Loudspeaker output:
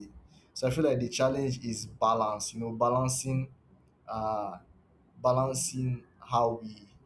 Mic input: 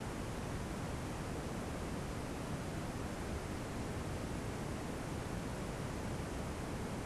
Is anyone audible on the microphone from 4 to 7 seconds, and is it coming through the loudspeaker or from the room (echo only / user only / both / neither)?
neither